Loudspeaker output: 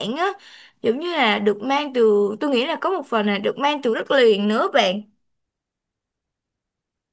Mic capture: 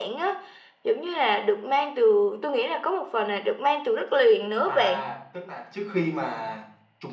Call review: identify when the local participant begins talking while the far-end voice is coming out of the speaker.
5 s

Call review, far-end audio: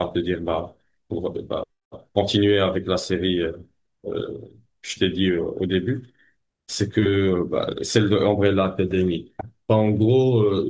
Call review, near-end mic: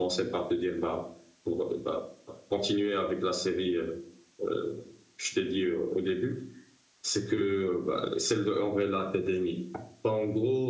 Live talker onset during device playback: none

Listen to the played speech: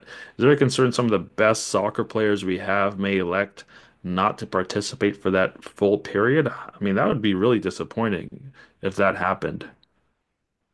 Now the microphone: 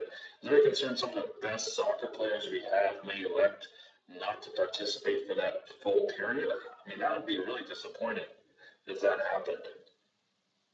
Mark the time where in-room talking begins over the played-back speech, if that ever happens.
none

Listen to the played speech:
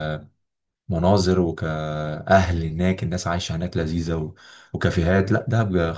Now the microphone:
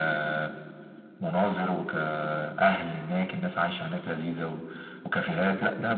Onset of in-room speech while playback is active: none

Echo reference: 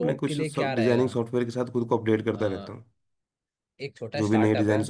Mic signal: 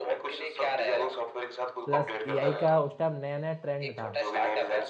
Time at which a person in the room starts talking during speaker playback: 2 s

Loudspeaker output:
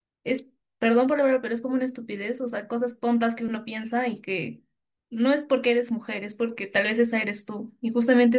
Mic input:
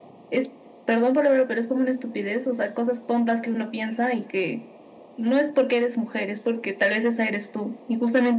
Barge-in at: none

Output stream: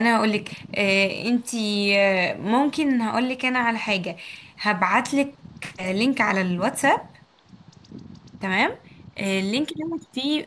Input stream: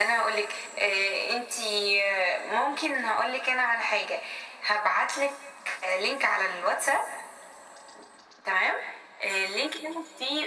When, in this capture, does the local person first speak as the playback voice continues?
none

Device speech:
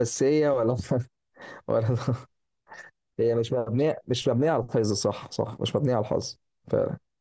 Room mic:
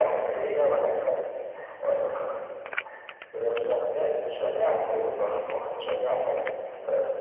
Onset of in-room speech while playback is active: none

